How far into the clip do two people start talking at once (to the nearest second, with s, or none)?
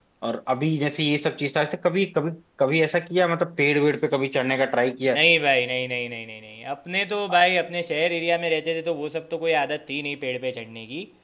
none